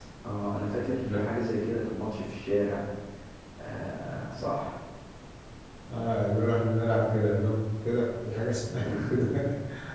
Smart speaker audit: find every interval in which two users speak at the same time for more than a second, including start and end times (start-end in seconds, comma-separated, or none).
none